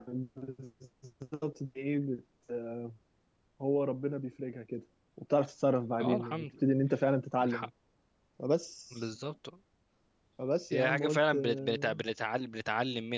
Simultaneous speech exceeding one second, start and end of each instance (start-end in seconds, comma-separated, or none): 10.7-12.0